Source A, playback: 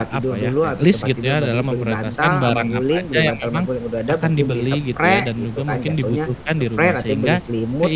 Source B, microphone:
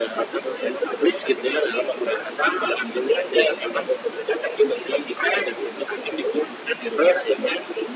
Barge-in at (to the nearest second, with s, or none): none